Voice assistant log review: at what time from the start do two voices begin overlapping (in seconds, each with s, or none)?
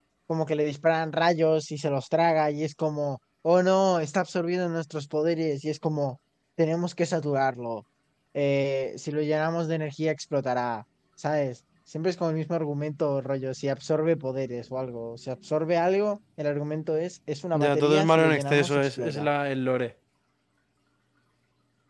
17.5 s